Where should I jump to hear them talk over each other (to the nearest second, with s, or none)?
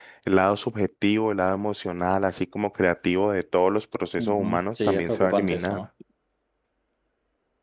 4 s